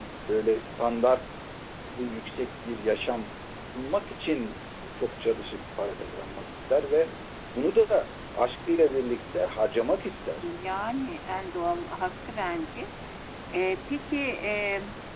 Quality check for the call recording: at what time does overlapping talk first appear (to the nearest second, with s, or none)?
none